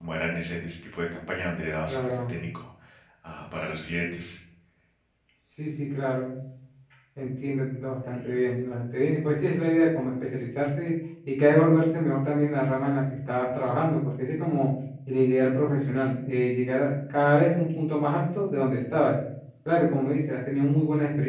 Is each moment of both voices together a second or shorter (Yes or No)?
Yes